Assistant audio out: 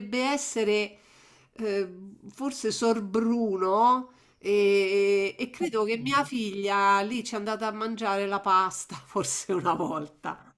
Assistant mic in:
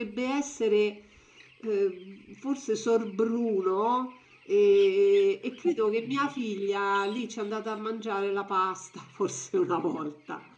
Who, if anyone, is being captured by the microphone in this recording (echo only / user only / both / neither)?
echo only